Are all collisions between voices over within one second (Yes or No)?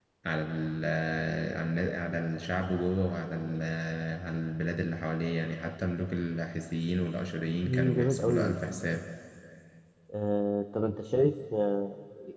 No